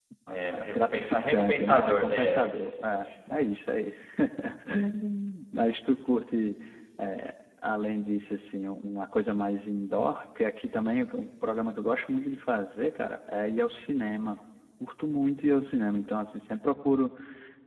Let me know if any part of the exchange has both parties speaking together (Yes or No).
Yes